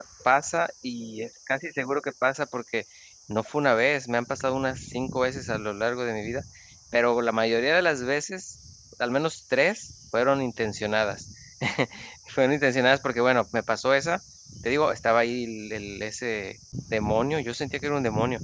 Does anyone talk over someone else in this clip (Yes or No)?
No